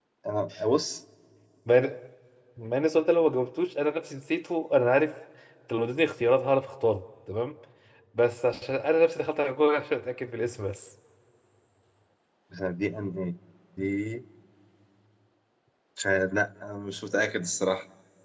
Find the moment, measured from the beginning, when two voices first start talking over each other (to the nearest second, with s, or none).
none